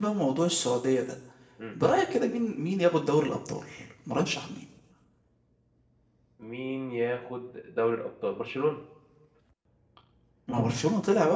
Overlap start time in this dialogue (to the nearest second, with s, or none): none